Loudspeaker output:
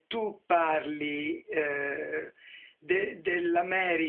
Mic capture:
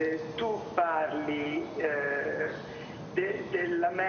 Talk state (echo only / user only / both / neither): echo only